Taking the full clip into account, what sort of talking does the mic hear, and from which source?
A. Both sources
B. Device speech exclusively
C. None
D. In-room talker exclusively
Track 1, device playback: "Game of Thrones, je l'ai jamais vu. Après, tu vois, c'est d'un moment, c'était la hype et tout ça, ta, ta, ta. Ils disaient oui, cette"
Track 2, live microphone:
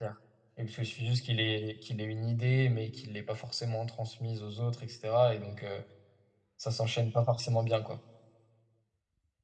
D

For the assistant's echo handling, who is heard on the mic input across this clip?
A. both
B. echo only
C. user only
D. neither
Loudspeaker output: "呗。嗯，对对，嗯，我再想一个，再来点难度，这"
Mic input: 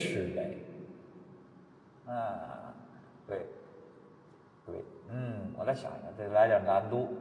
B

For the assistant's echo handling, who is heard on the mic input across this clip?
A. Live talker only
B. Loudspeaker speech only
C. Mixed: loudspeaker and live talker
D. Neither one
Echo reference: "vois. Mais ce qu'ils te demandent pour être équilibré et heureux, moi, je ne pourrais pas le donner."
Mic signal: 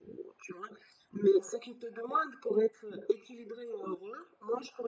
B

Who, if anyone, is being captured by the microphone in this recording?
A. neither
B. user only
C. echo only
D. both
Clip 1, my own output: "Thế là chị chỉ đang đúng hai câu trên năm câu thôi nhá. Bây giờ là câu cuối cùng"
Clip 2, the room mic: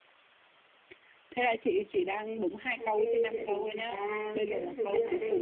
D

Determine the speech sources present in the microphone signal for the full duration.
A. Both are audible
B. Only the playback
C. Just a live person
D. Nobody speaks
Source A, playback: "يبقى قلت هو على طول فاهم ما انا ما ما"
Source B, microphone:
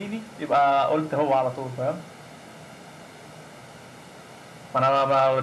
B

